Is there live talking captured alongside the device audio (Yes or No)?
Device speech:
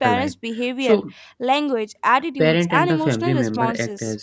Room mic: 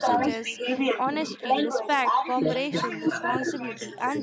Yes